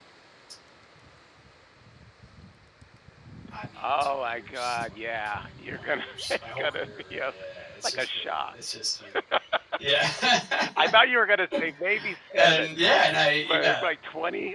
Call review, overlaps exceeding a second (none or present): present